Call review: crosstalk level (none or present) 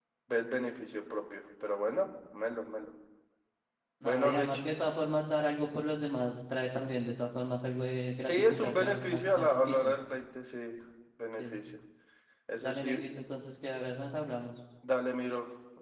present